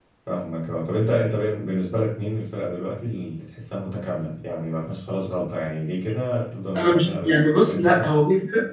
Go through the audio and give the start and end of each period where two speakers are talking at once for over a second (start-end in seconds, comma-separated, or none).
6.8-8.2